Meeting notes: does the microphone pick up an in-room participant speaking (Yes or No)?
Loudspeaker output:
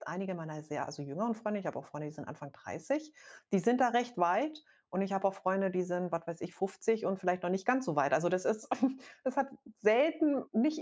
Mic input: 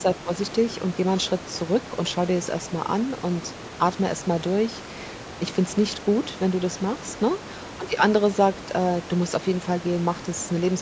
Yes